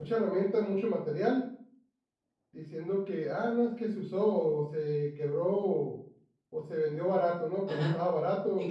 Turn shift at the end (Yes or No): Yes